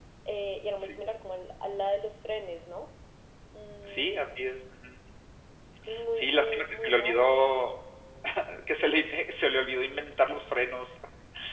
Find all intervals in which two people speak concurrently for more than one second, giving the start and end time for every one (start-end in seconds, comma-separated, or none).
6.1-7.3